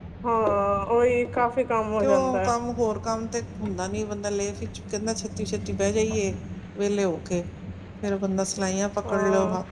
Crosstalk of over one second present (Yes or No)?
No